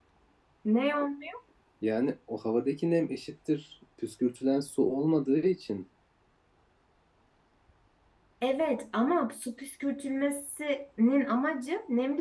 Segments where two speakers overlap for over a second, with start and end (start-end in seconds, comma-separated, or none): none